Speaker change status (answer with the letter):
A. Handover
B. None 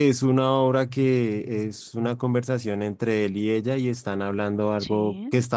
B